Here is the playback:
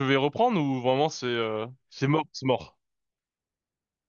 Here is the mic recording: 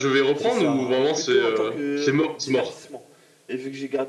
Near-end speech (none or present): present